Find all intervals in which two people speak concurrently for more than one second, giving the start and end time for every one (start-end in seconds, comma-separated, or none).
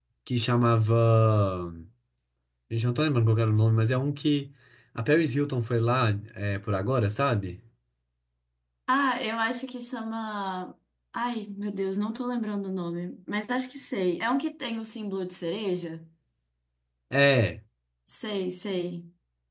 none